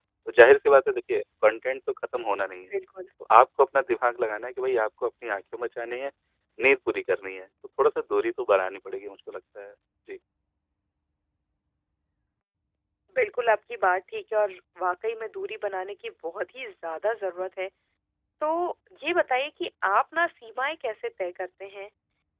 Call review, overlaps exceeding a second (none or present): none